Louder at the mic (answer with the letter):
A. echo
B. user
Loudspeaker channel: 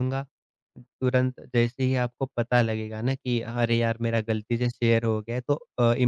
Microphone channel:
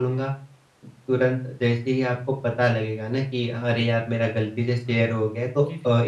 A